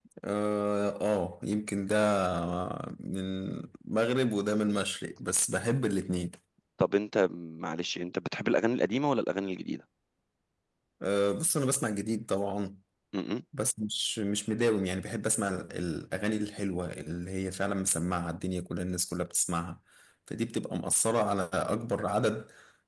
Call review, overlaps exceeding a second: none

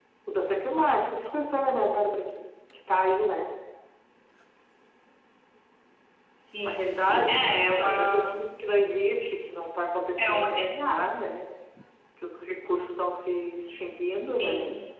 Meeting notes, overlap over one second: present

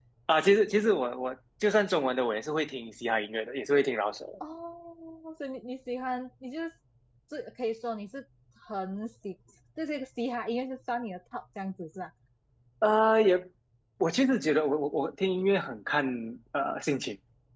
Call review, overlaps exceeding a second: none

